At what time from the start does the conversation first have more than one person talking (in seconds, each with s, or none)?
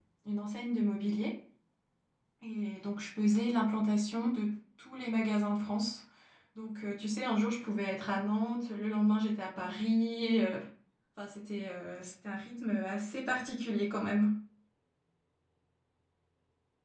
none